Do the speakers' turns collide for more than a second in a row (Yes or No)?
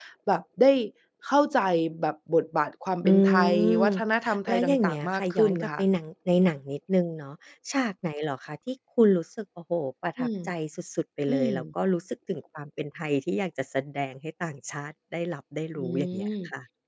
Yes